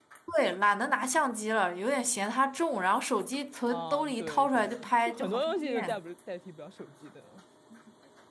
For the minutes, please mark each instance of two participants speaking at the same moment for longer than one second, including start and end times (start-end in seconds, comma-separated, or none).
3.7-6.0